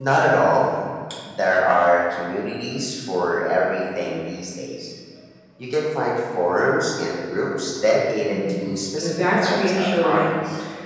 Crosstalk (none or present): present